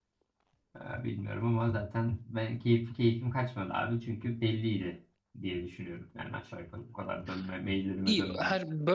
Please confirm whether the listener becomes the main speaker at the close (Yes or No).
Yes